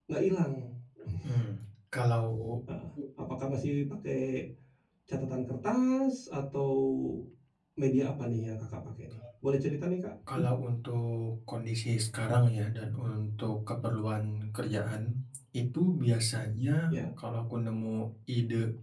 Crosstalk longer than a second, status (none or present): none